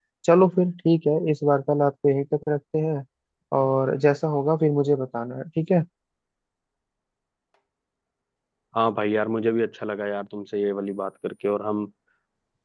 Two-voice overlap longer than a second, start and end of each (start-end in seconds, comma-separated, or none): none